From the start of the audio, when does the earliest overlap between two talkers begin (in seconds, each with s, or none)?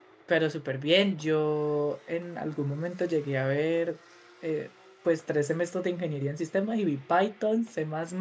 none